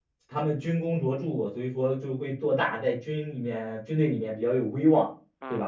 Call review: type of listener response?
listening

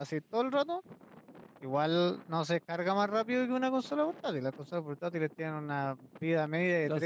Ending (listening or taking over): taking over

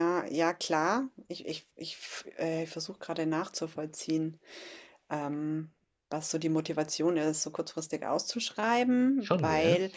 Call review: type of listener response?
listening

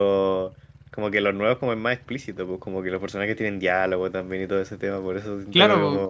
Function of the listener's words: listening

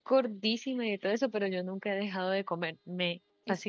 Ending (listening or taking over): taking over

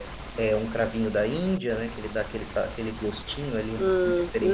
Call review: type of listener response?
taking over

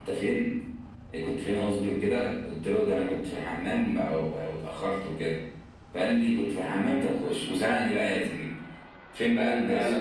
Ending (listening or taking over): listening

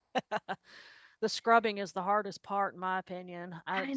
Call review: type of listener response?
listening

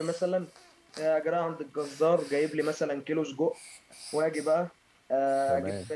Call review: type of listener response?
listening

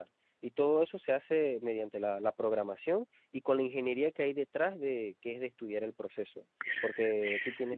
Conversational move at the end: taking over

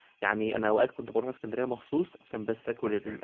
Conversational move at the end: listening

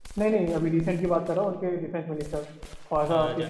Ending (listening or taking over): taking over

